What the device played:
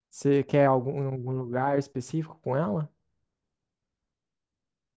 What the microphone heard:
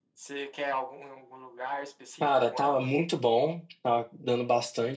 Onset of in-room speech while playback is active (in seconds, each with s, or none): 2.2 s